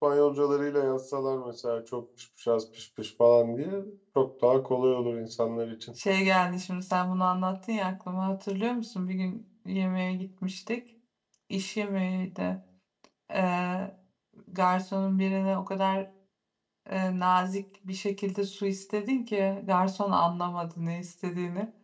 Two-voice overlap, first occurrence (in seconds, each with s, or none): none